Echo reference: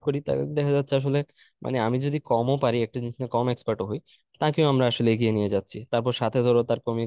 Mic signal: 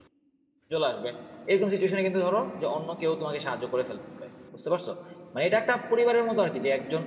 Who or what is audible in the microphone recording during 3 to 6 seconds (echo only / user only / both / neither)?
user only